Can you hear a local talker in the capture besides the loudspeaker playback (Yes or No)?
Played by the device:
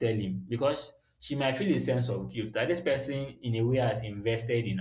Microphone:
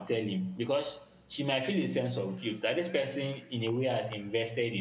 No